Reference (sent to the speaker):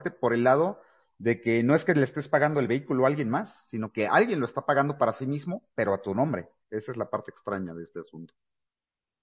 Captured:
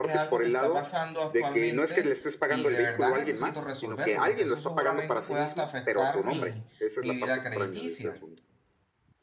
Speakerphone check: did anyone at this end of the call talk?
Yes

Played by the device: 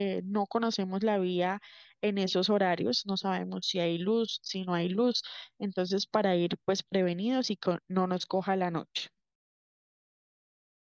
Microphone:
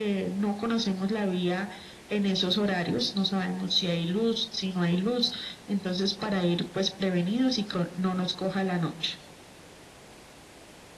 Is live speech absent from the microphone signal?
Yes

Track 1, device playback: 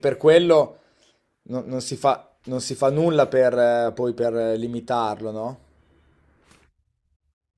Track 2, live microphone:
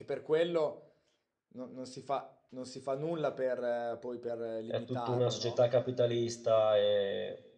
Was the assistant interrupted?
Yes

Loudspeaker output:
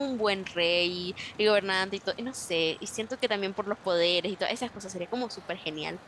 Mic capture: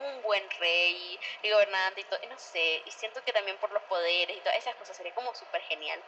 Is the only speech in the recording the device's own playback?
Yes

